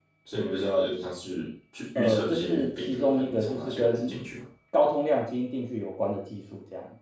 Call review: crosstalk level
present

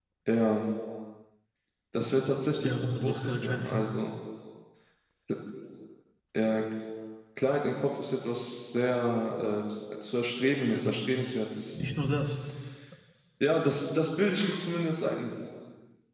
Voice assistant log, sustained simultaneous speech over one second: present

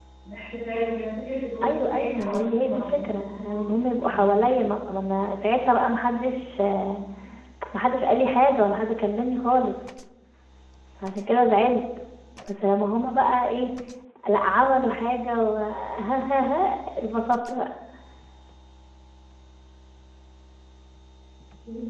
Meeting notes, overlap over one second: present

